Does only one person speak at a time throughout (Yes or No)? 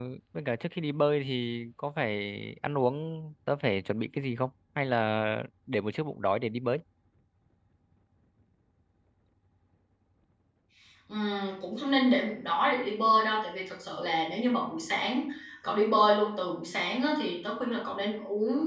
Yes